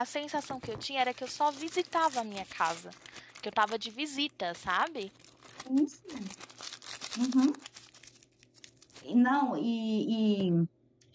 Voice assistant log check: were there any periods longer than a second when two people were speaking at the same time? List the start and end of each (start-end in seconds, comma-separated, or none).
none